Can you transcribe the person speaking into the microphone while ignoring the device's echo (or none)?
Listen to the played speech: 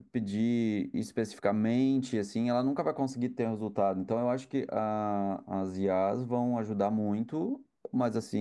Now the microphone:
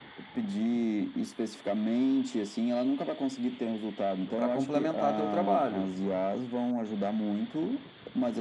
para complementar teu trabalho,